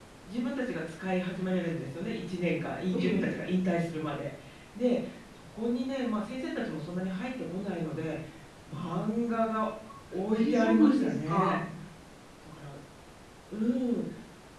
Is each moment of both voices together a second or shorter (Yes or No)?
No